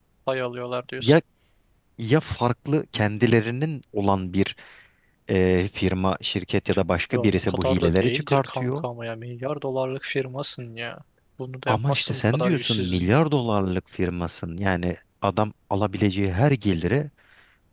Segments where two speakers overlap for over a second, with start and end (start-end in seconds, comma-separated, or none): 7.1-8.8, 11.7-13.1